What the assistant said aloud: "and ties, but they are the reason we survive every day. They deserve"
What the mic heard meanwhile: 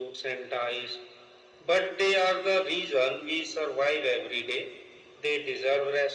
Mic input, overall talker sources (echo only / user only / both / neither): echo only